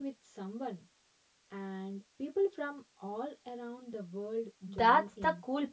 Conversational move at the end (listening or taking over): taking over